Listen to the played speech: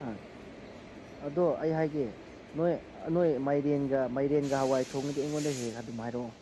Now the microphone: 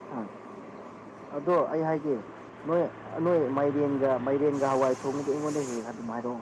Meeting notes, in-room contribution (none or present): none